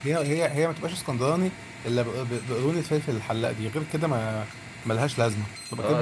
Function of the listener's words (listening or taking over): taking over